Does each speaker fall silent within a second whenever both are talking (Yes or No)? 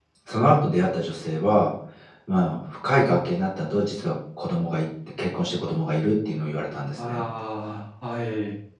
Yes